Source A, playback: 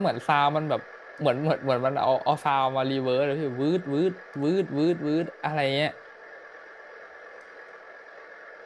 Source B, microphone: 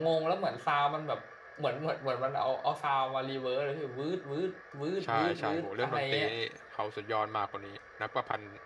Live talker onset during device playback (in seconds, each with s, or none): 5.0 s